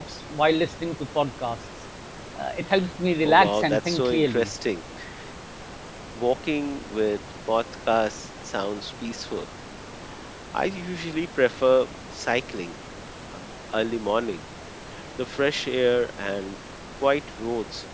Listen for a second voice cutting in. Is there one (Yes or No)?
Yes